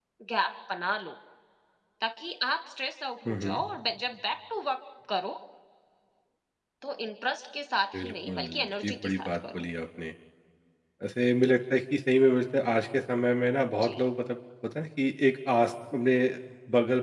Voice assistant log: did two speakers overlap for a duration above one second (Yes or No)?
Yes